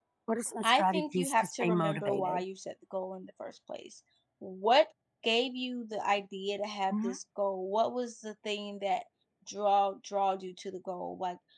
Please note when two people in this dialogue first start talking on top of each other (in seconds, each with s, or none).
0.6 s